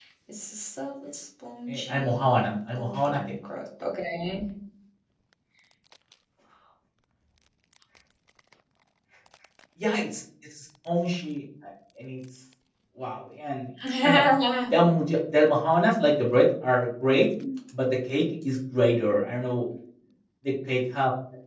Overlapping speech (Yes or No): Yes